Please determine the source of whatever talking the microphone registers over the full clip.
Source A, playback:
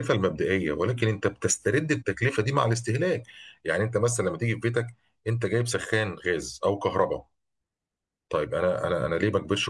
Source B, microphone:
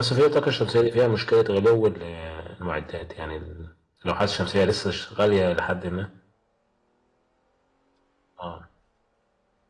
user only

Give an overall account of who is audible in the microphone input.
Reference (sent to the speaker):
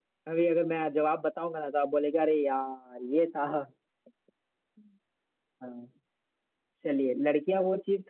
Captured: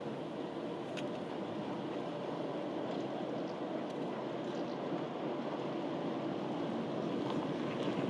neither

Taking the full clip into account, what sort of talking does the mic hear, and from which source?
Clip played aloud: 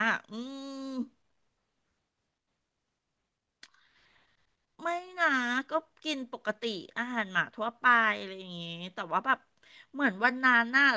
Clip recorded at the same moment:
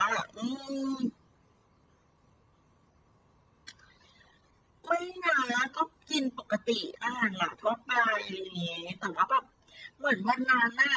echo only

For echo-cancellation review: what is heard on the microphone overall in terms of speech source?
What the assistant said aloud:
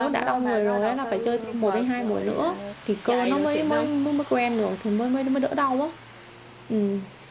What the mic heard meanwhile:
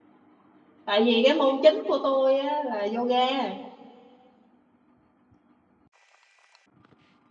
user only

